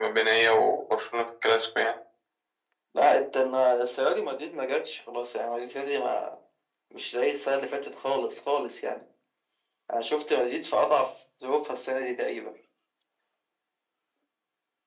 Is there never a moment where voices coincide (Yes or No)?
Yes